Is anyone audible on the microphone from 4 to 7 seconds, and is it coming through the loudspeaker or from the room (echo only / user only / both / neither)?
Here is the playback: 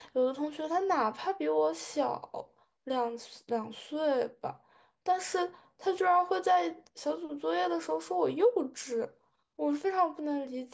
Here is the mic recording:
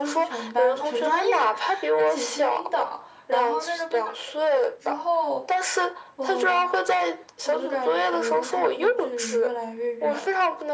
both